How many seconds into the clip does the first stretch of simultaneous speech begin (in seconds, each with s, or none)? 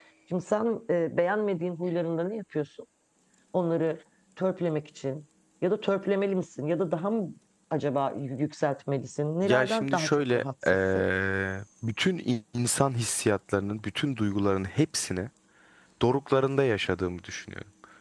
9.4 s